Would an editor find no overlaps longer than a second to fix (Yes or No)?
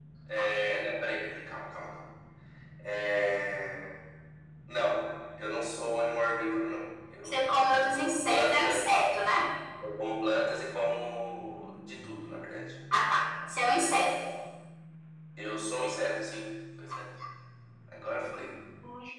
No